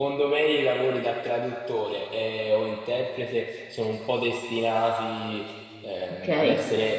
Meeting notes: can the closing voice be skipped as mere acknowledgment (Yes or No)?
Yes